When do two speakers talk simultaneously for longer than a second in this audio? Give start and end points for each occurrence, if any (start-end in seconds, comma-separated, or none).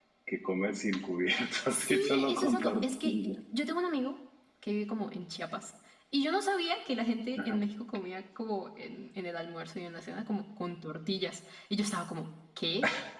1.7-3.4